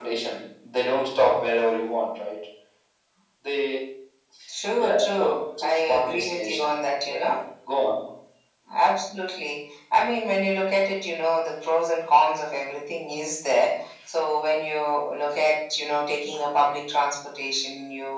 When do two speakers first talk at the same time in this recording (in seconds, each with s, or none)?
4.8 s